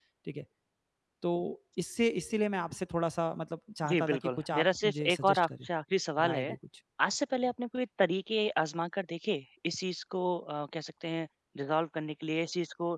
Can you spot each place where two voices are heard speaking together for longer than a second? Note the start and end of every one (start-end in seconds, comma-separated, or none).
3.9-5.7